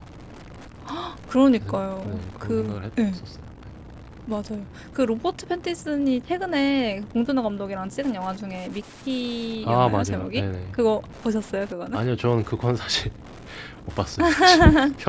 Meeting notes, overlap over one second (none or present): present